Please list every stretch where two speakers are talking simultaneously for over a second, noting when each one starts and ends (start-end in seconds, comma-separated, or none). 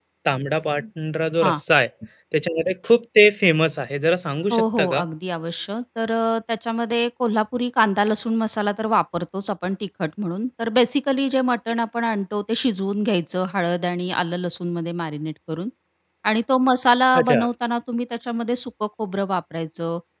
none